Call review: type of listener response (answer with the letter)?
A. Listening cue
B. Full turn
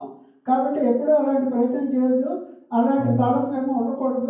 A